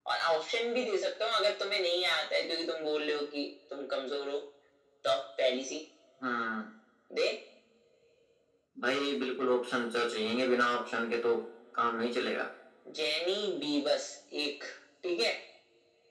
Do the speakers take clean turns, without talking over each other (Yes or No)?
Yes